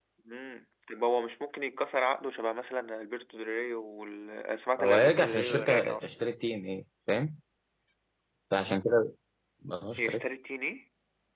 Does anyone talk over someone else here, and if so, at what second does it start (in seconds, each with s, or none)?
4.8 s